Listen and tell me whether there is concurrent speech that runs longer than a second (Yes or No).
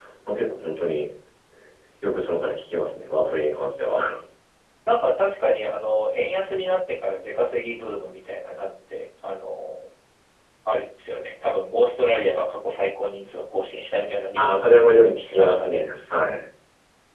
Yes